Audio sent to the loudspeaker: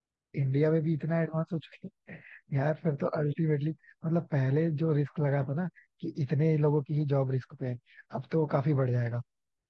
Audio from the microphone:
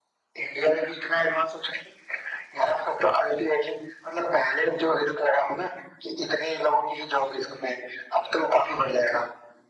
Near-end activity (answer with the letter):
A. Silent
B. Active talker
A